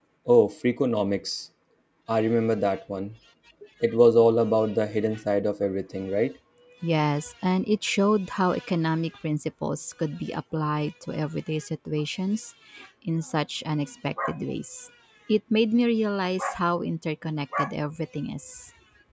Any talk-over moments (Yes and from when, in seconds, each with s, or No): No